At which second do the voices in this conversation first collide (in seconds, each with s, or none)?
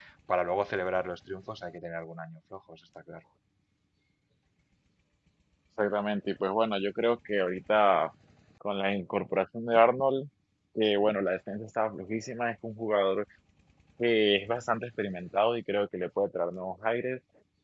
none